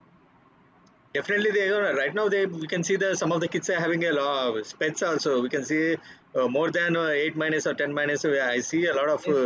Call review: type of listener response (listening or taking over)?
taking over